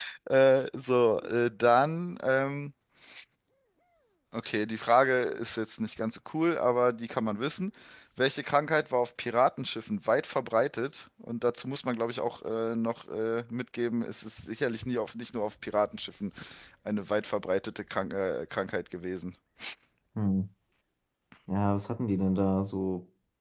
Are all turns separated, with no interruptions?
Yes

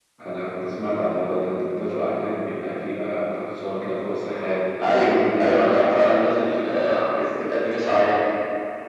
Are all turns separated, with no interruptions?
No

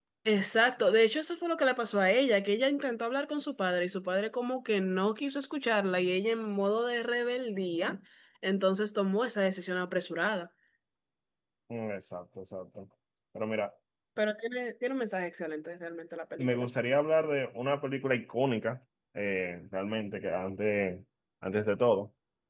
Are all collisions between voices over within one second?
Yes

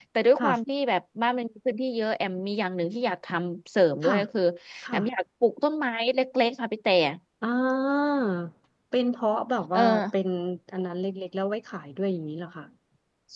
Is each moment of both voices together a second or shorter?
Yes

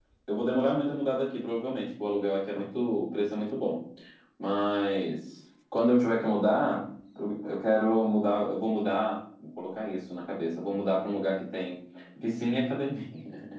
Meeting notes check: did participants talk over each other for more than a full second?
No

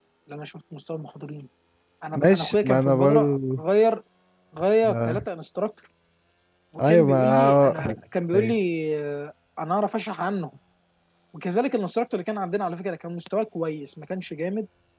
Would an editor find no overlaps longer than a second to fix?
No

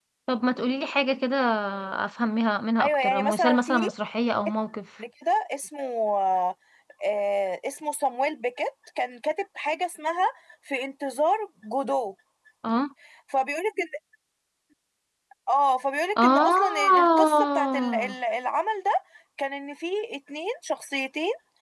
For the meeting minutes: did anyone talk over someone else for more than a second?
Yes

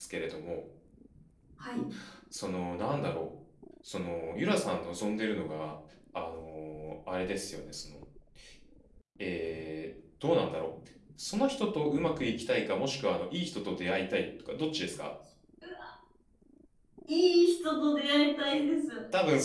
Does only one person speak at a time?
Yes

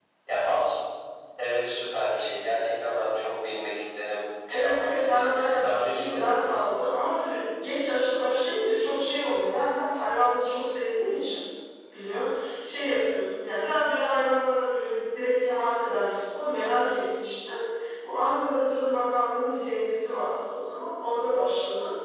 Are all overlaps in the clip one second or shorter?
No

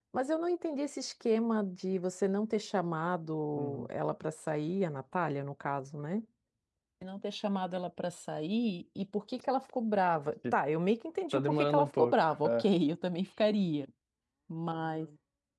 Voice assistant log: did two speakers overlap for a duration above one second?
Yes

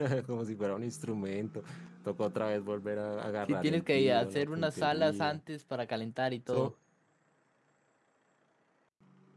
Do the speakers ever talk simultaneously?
Yes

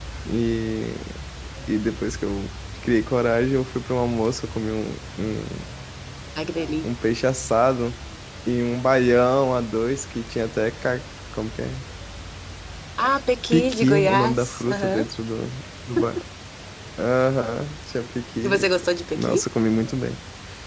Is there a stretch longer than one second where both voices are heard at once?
Yes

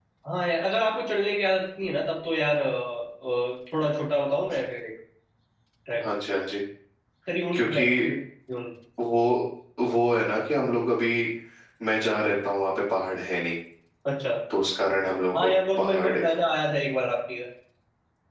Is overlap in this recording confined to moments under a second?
Yes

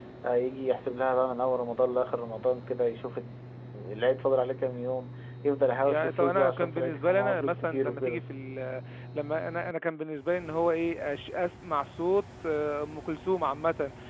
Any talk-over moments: Yes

